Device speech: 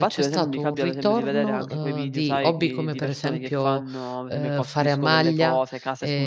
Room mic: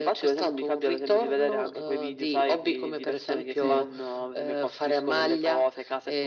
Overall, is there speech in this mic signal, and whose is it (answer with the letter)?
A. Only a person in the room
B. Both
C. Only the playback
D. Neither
B